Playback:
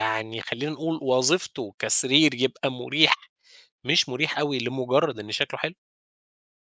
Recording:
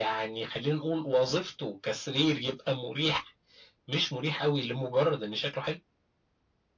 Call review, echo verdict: present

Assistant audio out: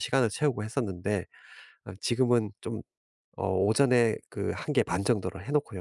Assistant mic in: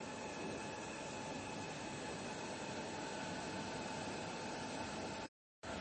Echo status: none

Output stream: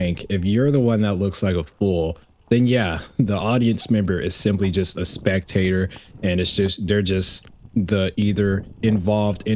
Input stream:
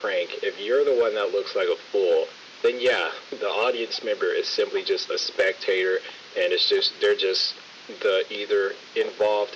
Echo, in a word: present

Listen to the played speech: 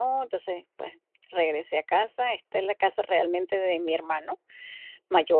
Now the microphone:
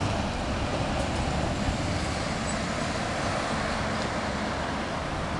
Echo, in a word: none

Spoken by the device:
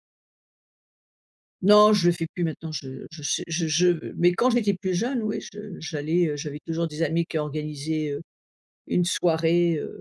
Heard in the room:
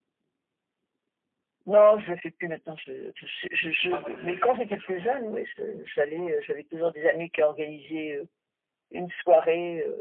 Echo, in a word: present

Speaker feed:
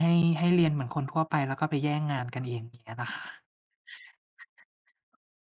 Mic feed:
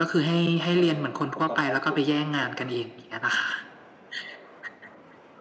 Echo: present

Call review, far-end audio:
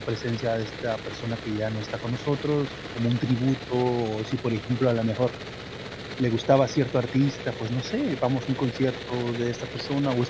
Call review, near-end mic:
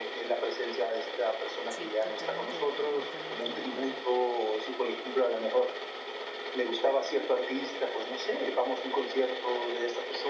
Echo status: present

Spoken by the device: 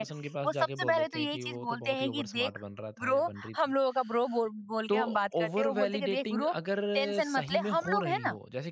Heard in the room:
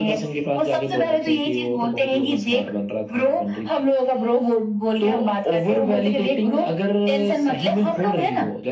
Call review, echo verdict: present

